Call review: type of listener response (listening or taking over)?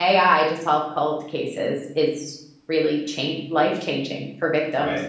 taking over